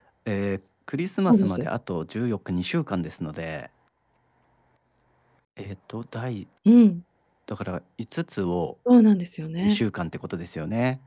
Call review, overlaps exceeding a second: none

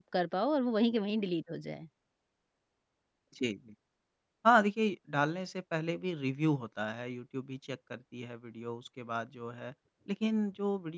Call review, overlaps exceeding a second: none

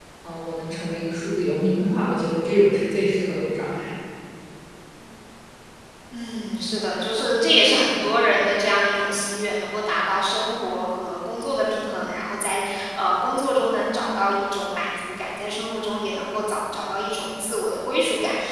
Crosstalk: none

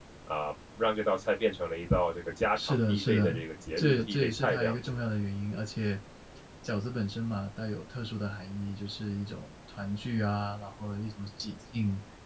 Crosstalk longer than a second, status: present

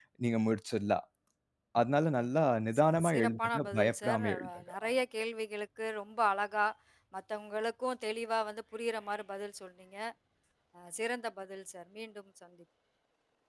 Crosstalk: present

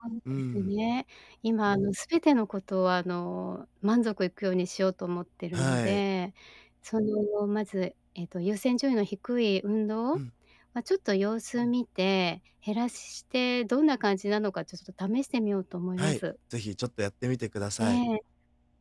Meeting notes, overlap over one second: none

